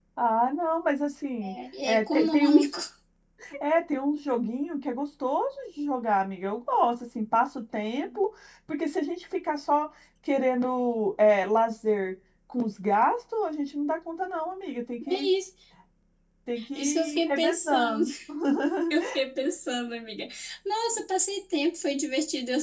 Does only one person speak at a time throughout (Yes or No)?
No